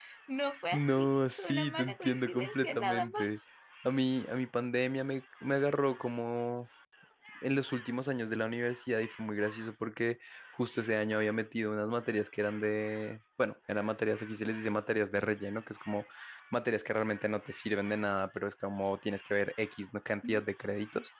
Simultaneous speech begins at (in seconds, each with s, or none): 0.7 s